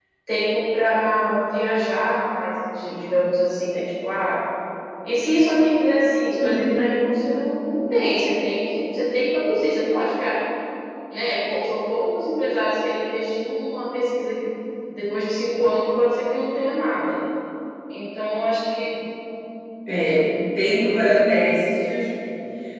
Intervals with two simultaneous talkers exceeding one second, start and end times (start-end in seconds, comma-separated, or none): none